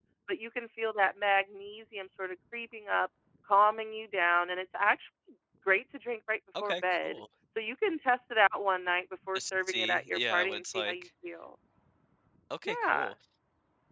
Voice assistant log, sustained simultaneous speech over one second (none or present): present